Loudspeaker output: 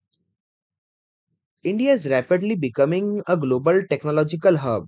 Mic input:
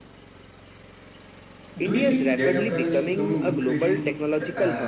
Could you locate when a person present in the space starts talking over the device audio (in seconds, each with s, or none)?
1.8 s